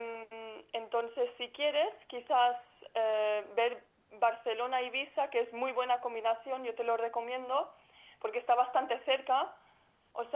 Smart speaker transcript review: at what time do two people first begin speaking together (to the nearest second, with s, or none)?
none